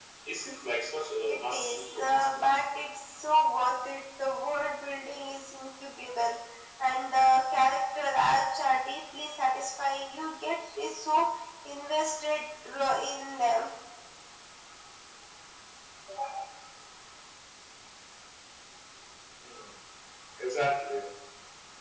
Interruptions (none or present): present